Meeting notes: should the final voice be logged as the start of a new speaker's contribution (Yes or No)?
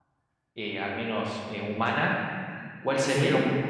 No